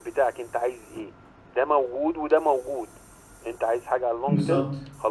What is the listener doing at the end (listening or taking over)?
listening